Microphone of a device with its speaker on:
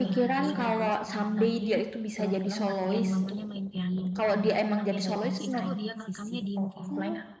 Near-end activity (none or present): present